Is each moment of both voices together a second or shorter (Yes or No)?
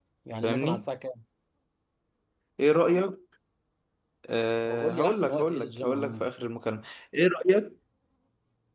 No